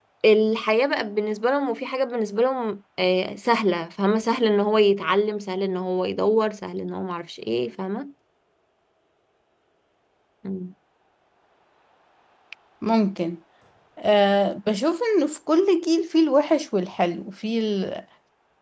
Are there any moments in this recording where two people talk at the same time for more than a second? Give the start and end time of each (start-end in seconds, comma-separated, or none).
none